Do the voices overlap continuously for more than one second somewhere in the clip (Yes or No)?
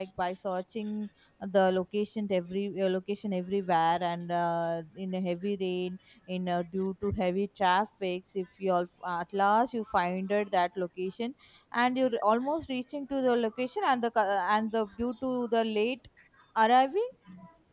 No